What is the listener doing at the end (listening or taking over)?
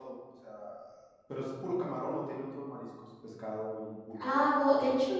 taking over